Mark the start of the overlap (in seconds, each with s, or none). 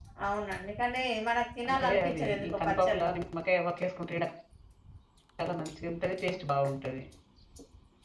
1.6 s